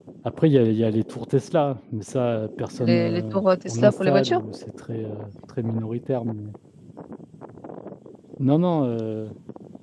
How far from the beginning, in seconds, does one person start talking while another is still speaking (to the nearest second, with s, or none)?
3 s